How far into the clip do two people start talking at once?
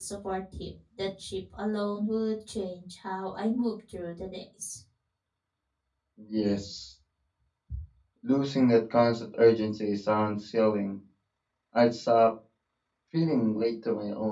none

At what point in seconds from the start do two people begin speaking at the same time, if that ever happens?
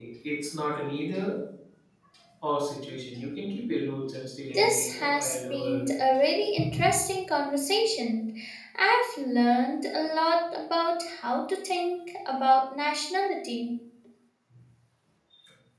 4.5 s

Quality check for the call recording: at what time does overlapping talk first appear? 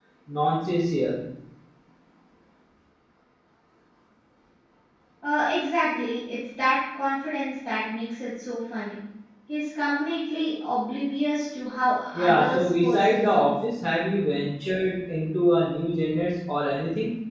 12.1 s

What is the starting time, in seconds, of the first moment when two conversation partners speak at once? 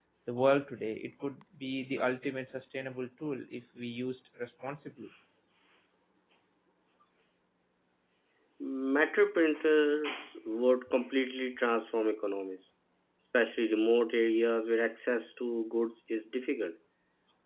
none

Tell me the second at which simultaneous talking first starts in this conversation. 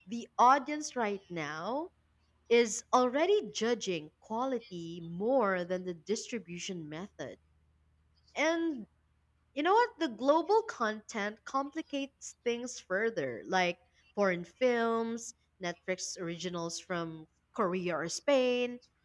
none

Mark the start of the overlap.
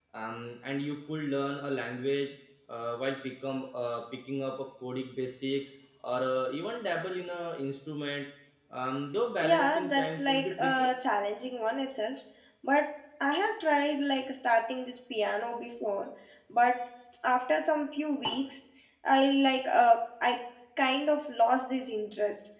9.4 s

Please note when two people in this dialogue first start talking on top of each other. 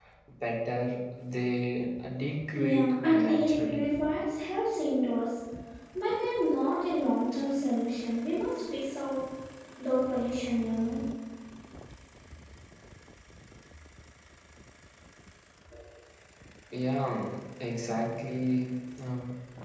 2.5 s

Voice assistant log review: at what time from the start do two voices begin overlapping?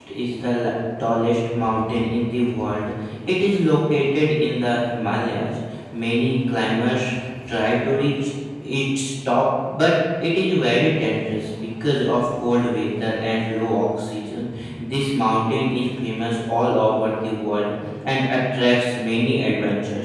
none

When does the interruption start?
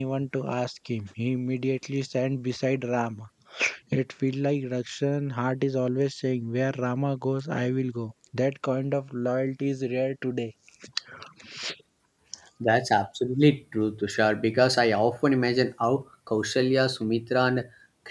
none

